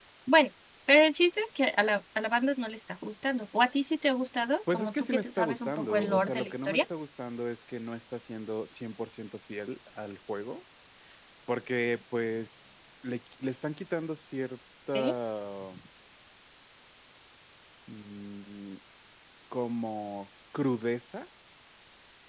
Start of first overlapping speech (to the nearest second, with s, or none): 5 s